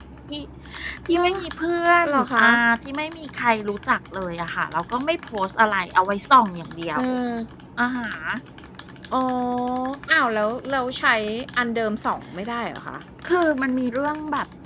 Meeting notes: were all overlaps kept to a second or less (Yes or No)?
Yes